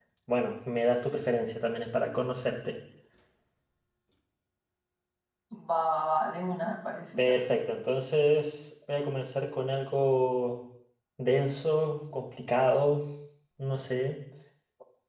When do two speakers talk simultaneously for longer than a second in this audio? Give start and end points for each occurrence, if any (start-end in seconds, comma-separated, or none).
none